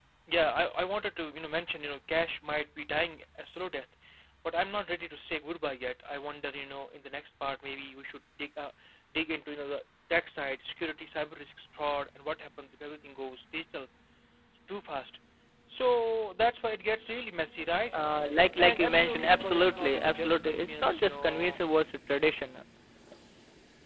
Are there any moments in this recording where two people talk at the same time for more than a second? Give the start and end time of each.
18.6-21.6

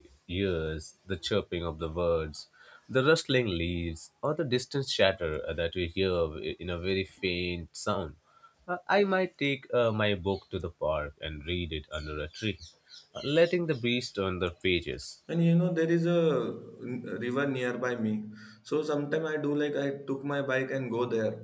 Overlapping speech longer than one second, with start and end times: none

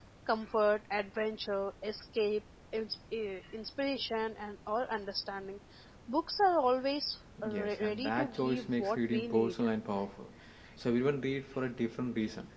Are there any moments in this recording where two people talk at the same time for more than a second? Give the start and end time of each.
7.5-9.6

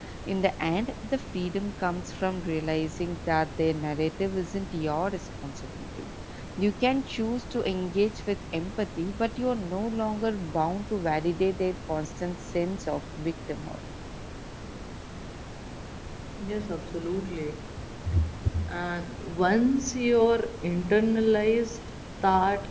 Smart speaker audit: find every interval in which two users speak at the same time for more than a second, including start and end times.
none

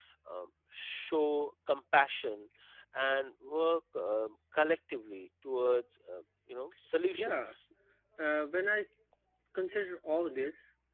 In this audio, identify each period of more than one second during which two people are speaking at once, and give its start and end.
none

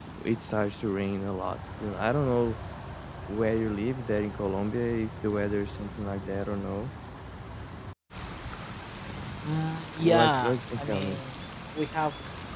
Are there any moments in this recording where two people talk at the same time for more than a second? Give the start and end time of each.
10.0-11.2

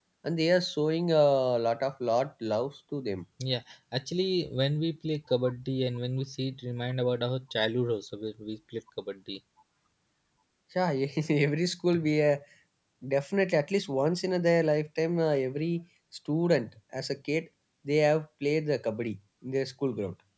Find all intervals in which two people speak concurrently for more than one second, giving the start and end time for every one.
none

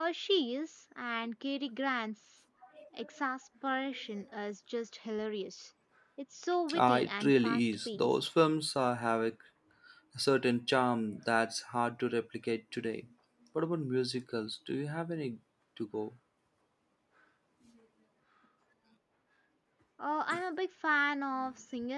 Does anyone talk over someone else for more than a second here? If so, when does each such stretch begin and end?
6.8-8.1

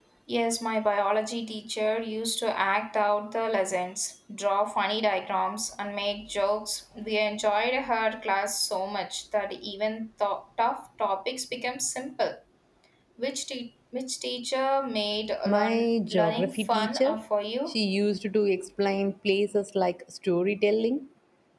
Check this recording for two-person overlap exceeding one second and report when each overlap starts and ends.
15.4-17.2

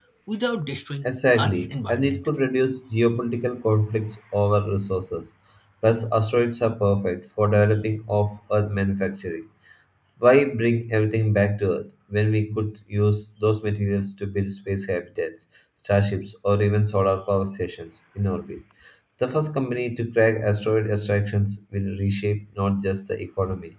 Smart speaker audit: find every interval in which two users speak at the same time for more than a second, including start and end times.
1.0-2.3

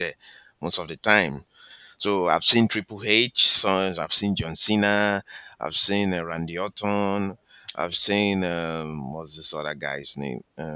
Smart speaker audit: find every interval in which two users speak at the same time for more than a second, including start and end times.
none

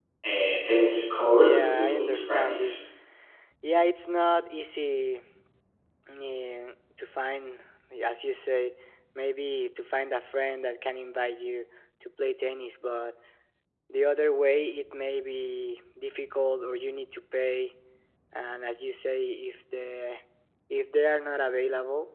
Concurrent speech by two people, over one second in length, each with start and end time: 1.3-2.8

